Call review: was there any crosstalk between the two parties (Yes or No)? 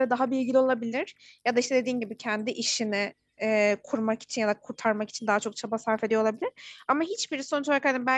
No